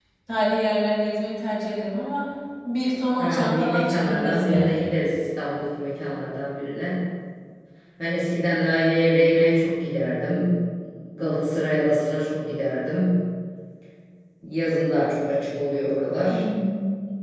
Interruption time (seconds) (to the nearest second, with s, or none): 3 s